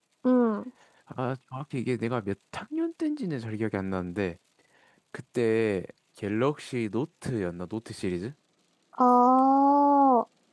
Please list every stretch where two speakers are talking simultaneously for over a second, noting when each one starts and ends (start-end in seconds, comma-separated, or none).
none